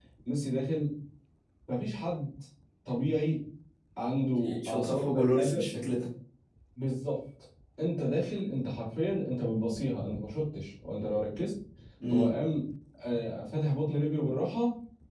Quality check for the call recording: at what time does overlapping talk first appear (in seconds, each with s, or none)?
4.3 s